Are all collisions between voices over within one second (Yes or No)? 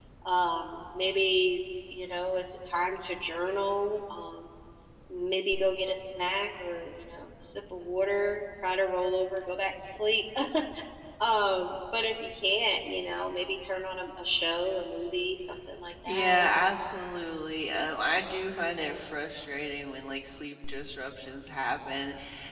Yes